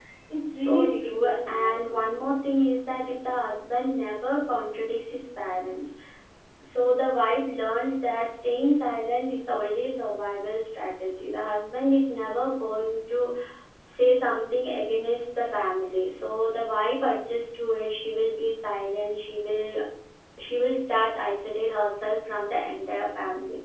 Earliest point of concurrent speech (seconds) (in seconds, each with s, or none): 0.6 s